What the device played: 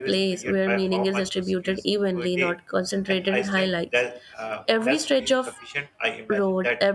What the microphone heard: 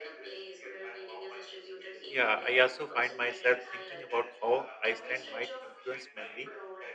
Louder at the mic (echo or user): user